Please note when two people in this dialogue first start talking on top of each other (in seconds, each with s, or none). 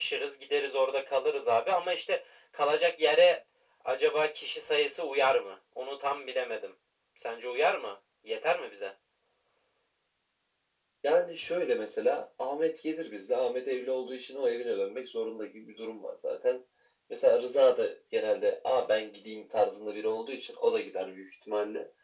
none